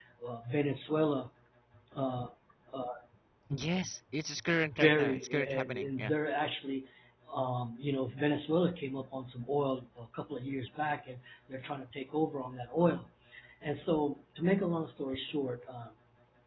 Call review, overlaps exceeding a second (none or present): present